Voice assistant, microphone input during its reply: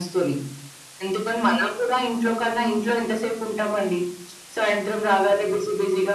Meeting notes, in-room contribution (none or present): none